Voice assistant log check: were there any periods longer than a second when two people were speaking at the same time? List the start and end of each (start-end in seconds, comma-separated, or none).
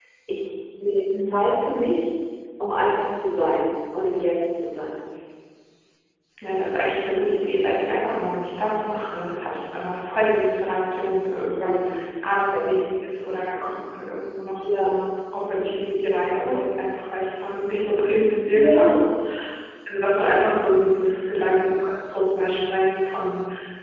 none